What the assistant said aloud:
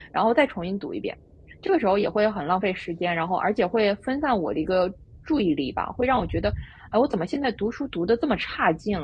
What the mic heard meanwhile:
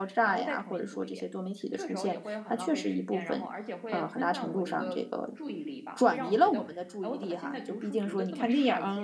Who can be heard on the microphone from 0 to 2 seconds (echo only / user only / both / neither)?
both